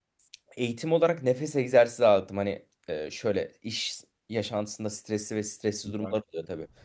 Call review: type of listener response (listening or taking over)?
listening